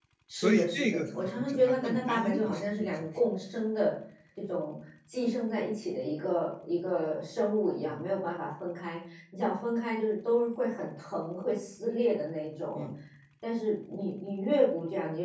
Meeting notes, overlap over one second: present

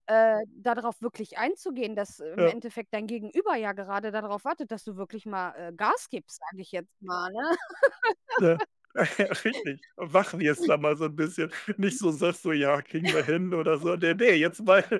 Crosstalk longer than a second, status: none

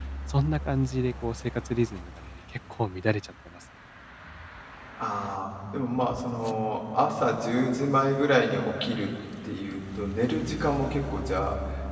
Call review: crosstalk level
none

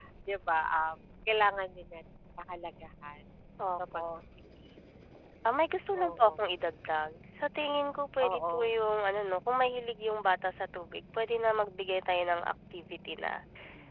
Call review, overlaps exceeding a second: none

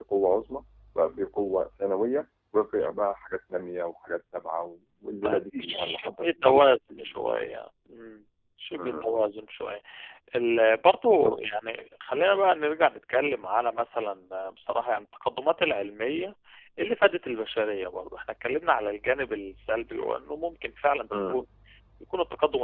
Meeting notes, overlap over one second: present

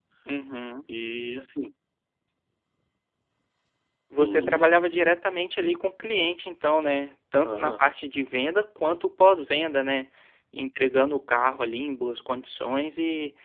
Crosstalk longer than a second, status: none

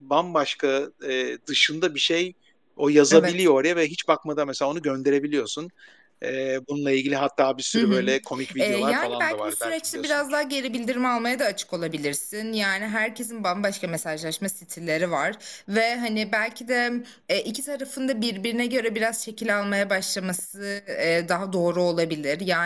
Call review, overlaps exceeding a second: present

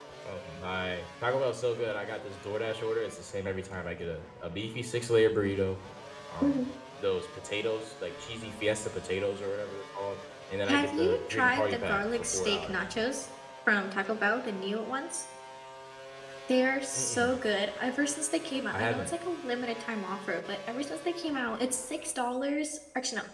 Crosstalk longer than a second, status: present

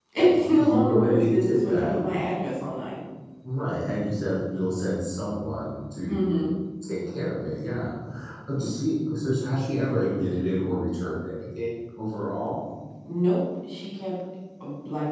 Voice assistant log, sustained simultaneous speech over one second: present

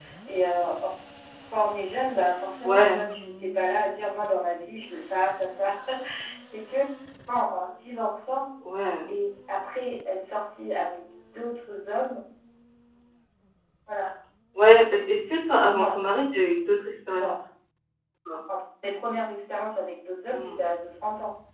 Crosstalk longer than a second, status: none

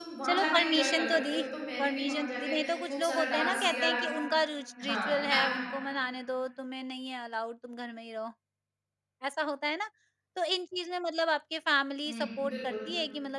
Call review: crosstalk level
present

